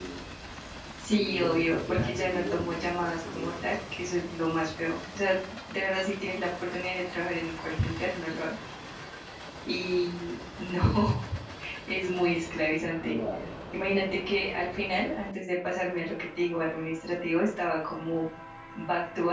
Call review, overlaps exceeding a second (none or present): present